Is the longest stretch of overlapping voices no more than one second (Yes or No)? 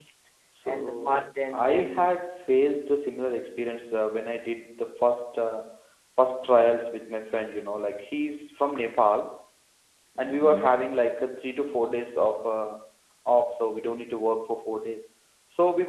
No